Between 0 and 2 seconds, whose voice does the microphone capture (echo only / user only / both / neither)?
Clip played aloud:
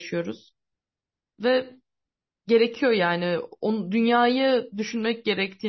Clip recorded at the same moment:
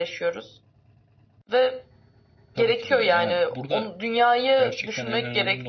echo only